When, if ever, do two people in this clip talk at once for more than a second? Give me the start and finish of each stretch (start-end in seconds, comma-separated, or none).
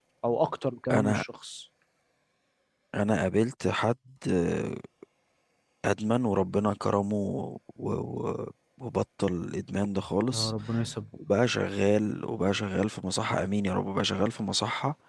none